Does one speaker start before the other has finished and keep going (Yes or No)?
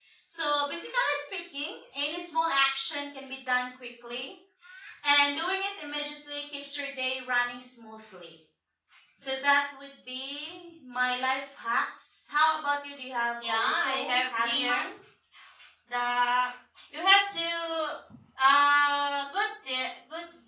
Yes